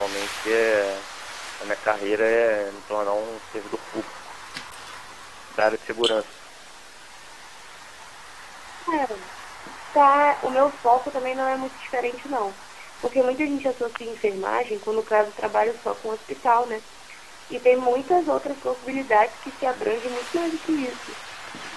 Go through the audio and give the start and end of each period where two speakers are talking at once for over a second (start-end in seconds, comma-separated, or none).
none